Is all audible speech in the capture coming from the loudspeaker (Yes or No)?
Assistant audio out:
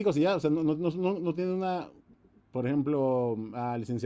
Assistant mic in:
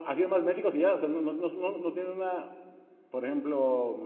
Yes